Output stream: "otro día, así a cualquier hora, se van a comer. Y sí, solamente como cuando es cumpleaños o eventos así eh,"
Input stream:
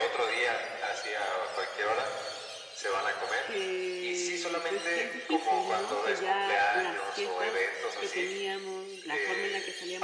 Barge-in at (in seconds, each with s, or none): 3.4 s